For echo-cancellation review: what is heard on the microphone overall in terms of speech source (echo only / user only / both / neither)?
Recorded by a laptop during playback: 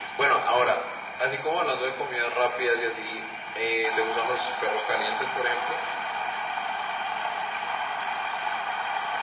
echo only